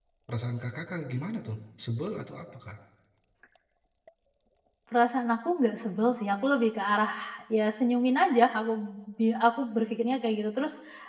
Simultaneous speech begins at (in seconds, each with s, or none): none